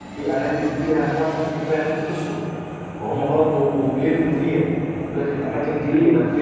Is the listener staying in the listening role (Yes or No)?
Yes